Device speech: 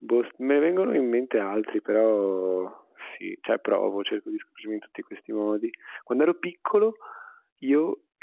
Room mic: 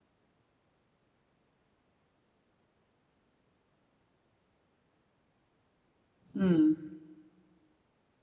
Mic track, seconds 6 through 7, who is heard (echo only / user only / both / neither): user only